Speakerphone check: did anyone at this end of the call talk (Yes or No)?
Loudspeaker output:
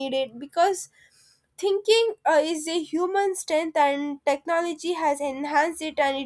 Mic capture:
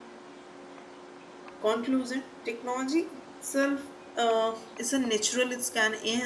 Yes